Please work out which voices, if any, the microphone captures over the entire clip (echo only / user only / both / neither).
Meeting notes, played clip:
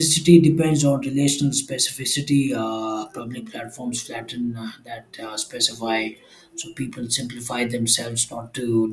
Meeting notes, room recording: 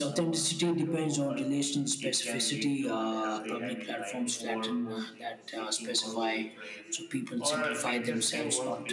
both